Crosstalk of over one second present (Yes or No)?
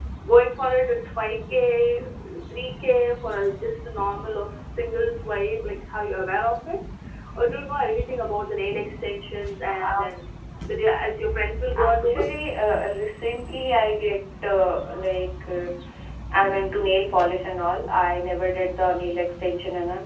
No